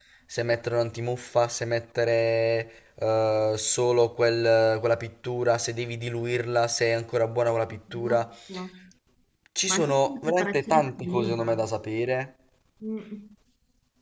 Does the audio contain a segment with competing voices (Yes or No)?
Yes